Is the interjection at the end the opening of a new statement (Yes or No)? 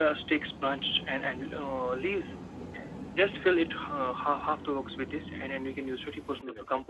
No